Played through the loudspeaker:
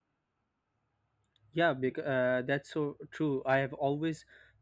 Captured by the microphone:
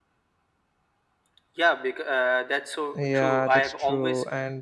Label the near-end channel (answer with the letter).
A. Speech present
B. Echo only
A